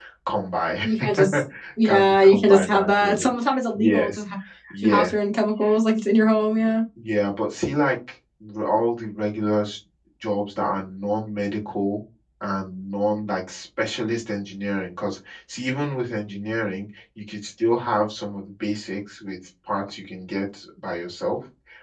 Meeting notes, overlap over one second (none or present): present